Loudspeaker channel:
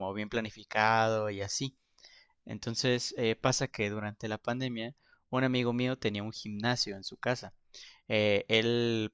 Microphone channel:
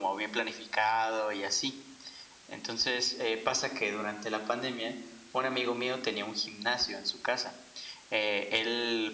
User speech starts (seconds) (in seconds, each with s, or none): none